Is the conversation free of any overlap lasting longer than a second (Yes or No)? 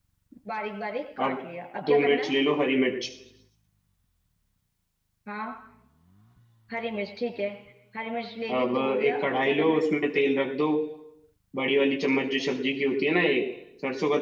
No